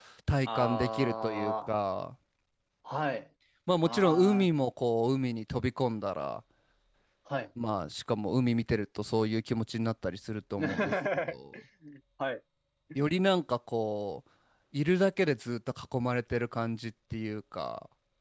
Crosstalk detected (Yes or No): Yes